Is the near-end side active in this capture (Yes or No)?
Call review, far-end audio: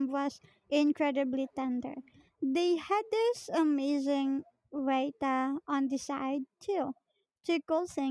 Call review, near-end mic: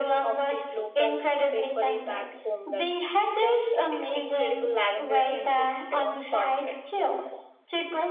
Yes